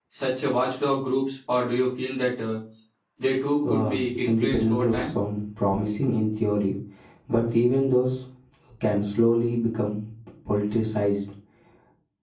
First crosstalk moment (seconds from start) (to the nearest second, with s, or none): 4 s